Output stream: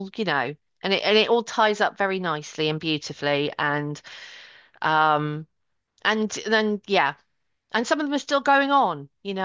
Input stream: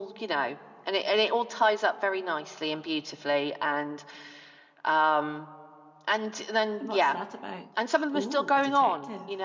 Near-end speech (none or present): present